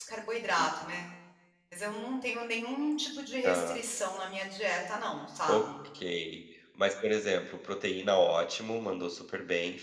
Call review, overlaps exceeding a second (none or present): none